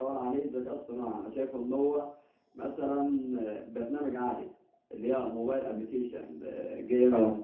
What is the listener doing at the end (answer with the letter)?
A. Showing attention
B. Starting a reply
A